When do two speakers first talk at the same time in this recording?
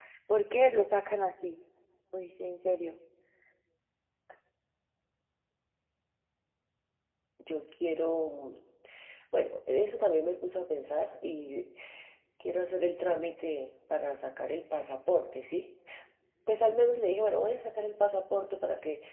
none

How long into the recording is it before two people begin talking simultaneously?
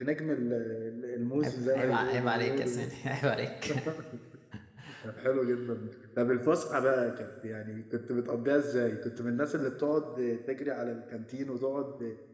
1 s

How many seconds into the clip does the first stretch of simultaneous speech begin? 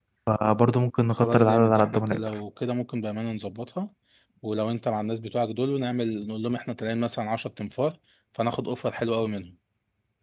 1 s

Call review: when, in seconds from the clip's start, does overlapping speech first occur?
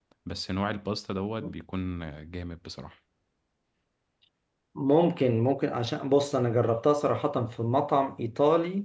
none

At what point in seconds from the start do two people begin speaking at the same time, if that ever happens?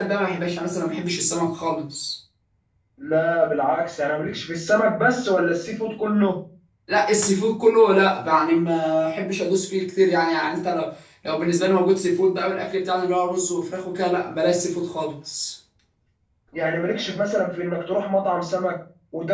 none

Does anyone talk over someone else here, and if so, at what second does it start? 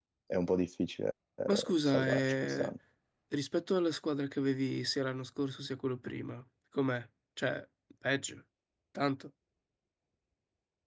1 s

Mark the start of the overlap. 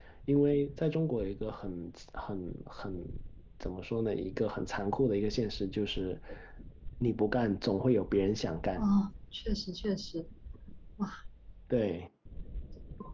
none

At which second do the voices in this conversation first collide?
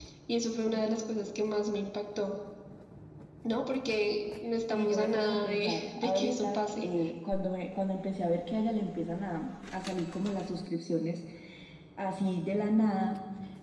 5 s

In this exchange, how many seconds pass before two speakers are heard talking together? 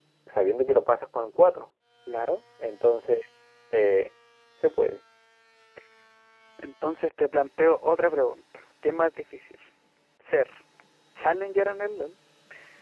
none

